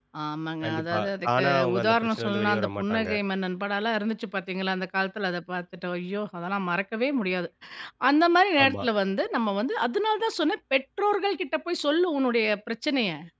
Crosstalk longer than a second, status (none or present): present